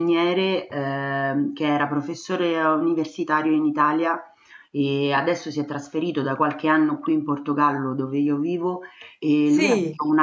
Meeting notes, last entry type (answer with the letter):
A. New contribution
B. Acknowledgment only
B